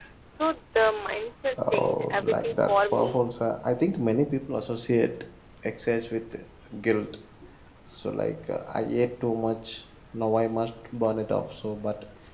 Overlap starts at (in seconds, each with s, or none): 1.5 s